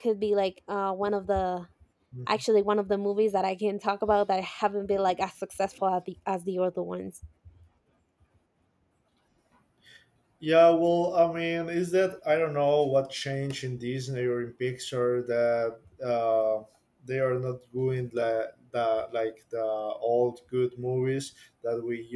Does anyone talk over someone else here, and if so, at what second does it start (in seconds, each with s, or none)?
none